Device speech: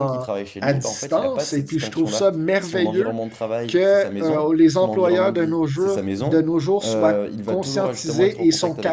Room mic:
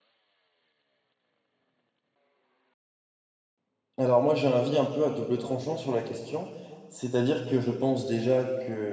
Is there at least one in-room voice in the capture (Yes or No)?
Yes